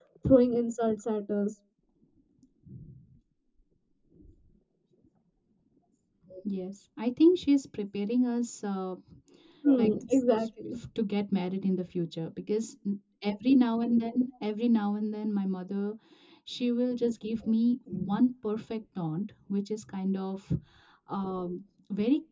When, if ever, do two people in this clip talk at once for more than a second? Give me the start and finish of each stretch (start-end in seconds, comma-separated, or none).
none